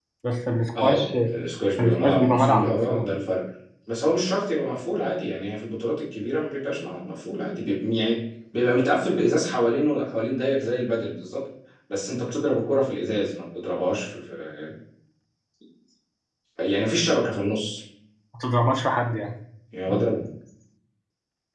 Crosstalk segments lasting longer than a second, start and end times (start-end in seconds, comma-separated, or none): 1.8-3.1